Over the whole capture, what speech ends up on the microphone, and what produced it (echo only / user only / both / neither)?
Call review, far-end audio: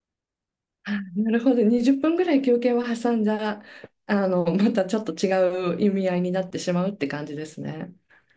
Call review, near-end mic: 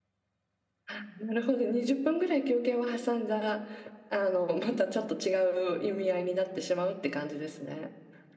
echo only